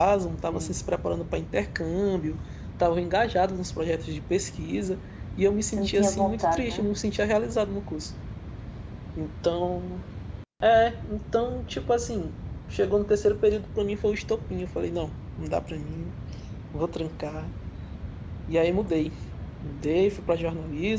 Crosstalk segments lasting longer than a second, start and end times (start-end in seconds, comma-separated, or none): 5.7-7.0